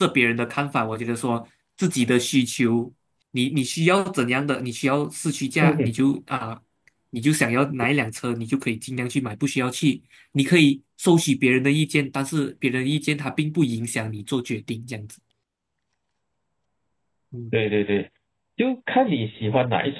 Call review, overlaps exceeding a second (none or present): none